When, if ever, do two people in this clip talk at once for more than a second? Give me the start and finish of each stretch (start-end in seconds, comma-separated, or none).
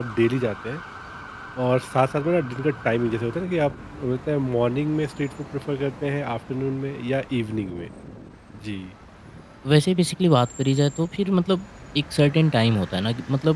none